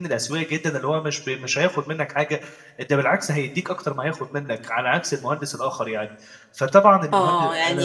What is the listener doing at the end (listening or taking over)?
taking over